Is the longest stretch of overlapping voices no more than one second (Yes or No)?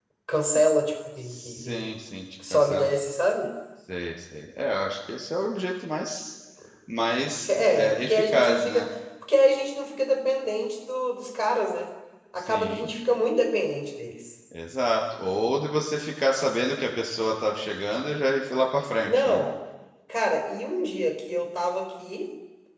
No